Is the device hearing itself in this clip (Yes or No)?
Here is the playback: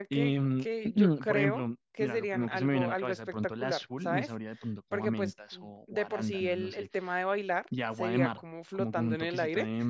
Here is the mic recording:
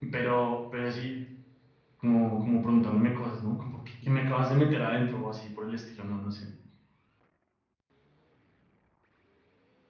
No